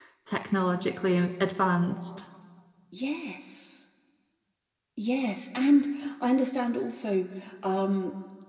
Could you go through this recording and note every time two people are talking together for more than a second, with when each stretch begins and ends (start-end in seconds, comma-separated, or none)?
none